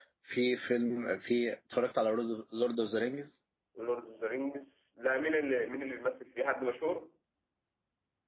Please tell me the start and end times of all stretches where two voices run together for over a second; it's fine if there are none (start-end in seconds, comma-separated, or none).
none